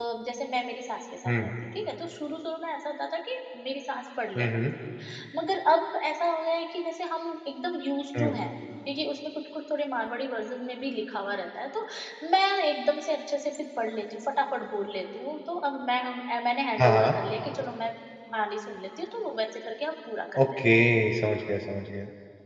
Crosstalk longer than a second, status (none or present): none